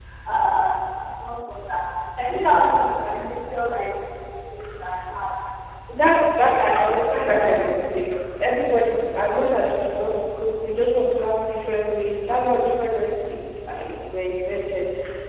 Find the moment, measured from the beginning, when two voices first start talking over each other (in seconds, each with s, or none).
none